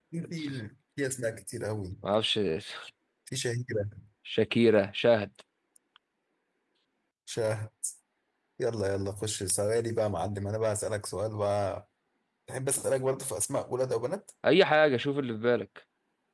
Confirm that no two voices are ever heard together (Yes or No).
Yes